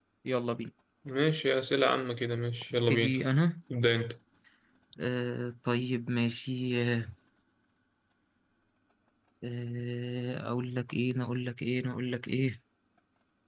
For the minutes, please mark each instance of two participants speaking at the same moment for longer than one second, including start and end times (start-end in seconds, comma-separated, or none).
none